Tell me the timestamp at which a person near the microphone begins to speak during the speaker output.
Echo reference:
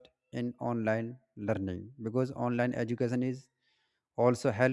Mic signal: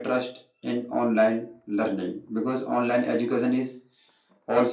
none

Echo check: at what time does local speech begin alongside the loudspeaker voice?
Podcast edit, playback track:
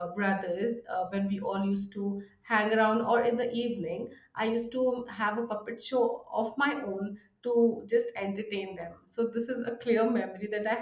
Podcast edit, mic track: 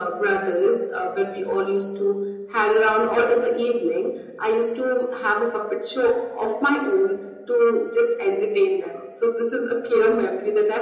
none

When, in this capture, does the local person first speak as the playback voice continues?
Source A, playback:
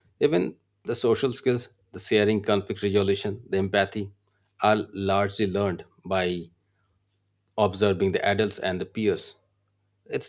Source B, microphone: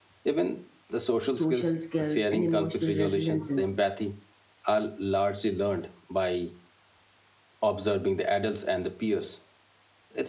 1.4 s

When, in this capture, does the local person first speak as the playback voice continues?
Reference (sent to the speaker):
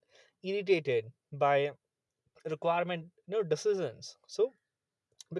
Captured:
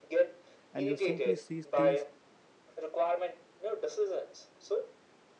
0.7 s

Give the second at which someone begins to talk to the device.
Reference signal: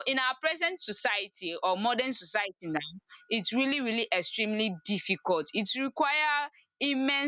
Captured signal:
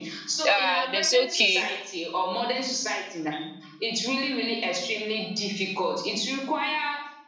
0.5 s

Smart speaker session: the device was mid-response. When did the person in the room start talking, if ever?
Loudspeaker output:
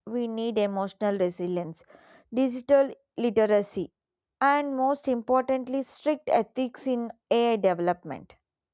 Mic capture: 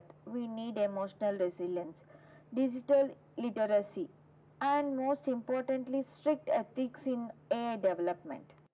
none

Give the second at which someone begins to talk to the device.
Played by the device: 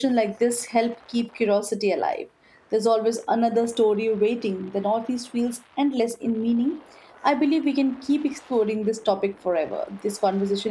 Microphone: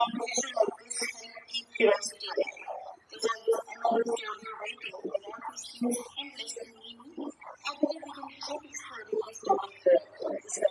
none

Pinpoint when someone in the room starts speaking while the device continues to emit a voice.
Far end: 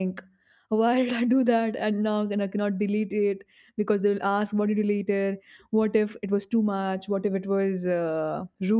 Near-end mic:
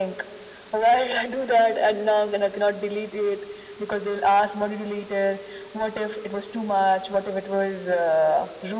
none

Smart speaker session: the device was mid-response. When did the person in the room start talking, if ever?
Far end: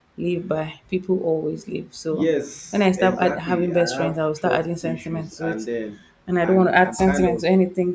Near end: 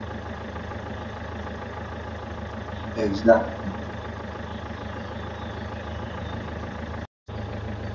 2.9 s

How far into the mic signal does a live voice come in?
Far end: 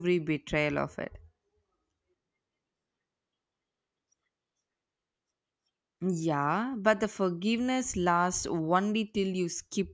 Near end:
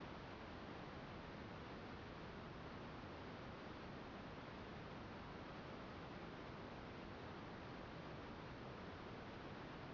none

